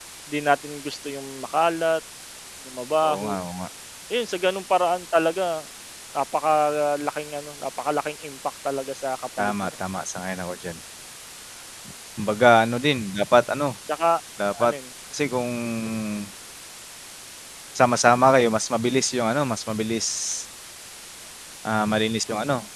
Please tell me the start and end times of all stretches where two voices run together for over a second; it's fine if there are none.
none

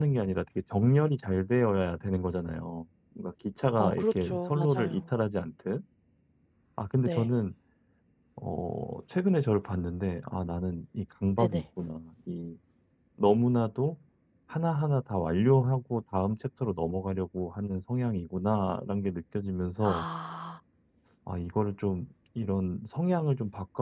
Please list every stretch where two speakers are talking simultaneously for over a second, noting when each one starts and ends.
3.8-5.0

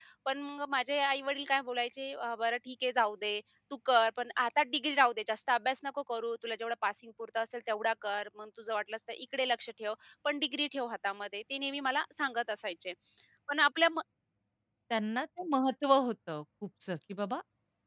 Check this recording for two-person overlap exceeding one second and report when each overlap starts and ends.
none

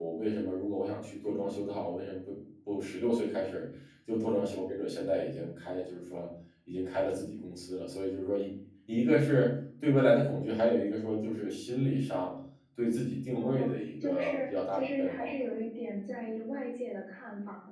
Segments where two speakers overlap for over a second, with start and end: 14.0-15.3

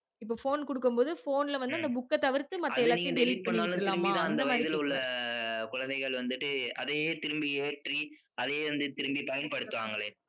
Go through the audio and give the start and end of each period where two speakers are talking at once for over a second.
2.8-4.9

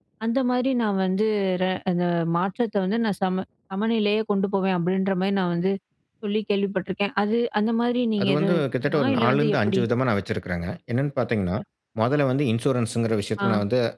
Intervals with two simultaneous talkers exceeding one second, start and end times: 8.2-9.8

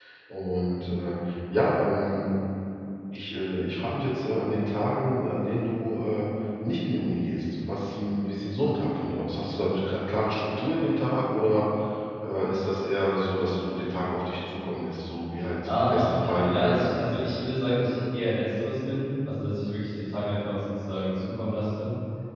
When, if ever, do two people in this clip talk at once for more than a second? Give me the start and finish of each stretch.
15.8-17.1

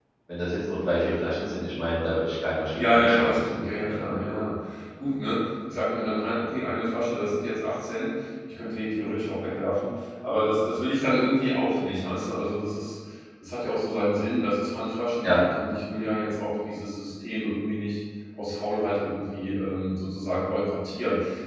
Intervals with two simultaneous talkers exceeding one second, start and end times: 2.8-4.4

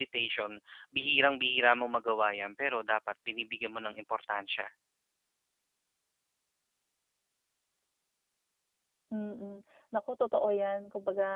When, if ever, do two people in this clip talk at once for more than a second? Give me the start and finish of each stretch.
none

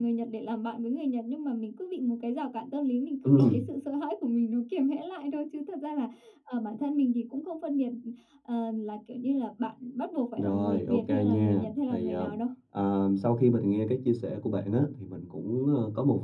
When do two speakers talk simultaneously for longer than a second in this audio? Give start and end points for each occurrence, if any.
10.4-12.3

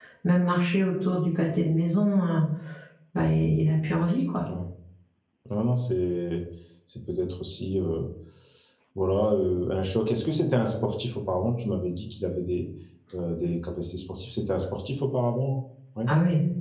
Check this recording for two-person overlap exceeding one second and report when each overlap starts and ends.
none

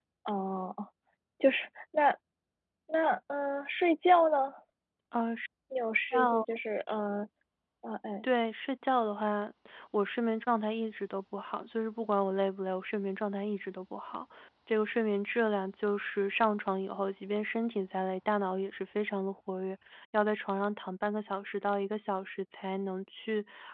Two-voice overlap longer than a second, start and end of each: none

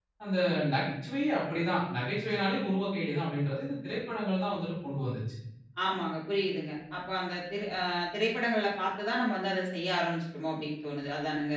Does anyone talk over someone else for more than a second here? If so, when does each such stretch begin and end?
none

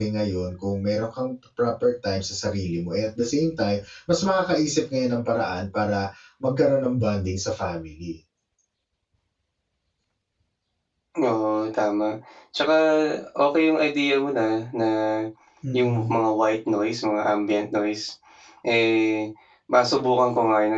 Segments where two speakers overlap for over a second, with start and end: none

